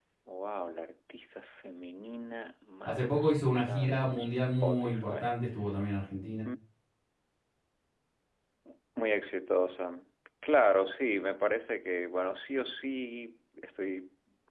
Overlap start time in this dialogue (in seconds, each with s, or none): 2.9 s